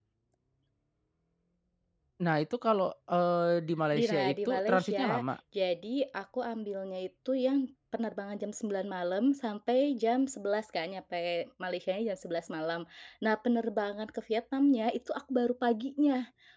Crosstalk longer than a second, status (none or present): present